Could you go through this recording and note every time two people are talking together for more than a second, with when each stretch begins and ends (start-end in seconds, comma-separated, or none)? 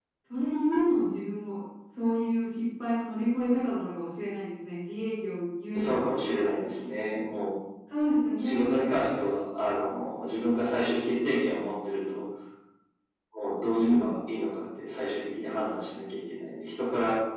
none